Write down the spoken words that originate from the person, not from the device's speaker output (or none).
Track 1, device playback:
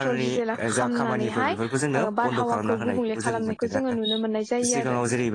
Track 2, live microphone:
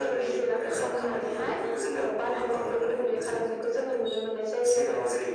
none